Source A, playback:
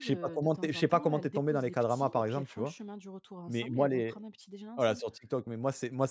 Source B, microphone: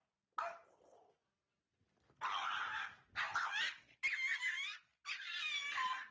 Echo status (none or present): none